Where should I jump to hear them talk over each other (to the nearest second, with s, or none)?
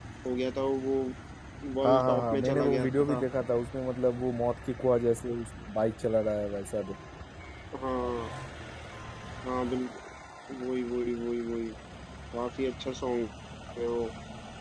2 s